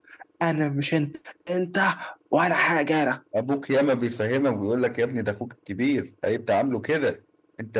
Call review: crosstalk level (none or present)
none